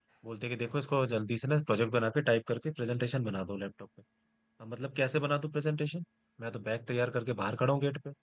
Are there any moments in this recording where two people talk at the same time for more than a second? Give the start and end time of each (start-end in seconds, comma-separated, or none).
none